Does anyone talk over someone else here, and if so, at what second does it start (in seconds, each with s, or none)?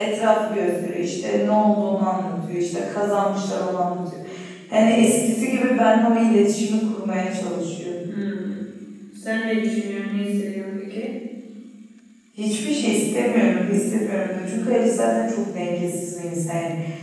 none